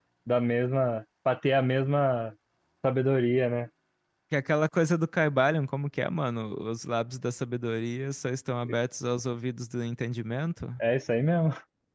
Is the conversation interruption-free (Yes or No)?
Yes